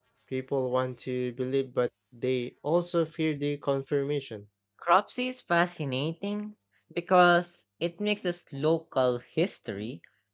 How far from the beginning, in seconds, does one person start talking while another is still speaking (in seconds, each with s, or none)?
none